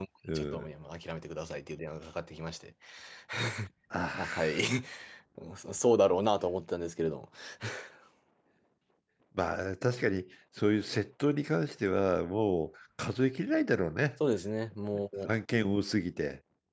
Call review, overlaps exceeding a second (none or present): none